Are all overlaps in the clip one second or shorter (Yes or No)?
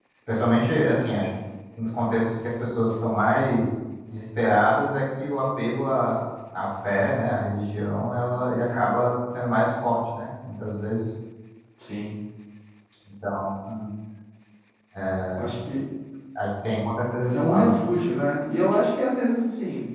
Yes